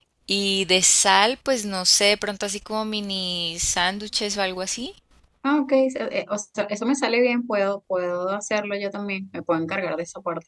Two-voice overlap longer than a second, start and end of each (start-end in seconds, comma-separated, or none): none